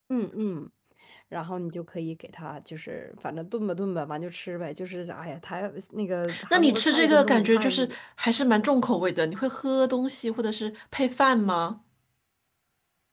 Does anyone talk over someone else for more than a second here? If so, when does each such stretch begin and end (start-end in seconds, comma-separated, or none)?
6.5-8.0